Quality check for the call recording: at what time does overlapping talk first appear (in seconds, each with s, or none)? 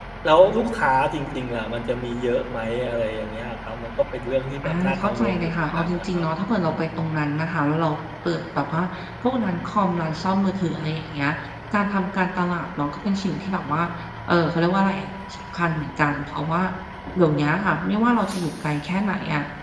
4.6 s